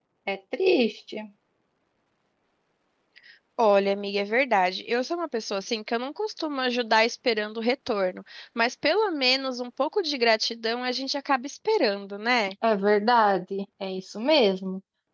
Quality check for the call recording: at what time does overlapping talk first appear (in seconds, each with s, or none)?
none